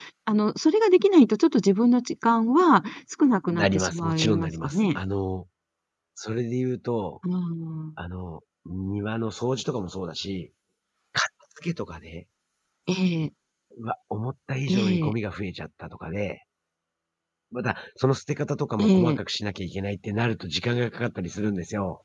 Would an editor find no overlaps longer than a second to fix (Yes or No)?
No